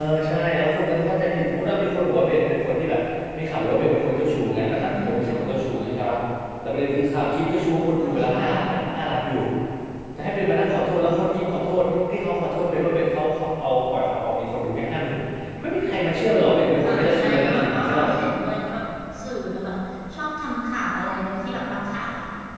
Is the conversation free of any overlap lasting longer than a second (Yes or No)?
No